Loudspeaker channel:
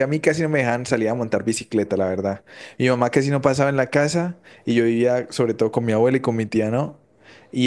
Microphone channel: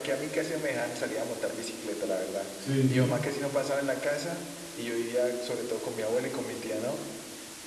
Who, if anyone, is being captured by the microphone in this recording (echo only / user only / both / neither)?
both